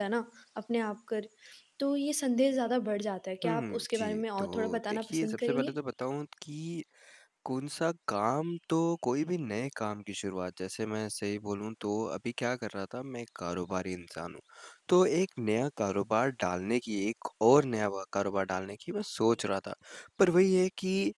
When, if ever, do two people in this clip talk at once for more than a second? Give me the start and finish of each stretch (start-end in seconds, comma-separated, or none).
3.4-5.8